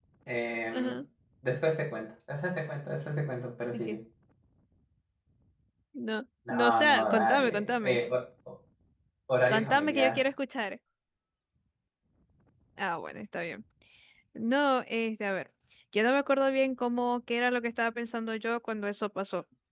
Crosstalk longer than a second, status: present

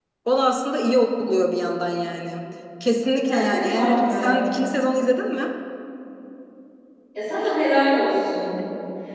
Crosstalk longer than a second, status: present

